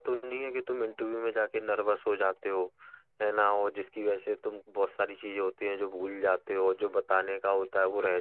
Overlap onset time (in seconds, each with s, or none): none